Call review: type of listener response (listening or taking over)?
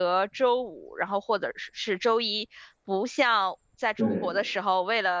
listening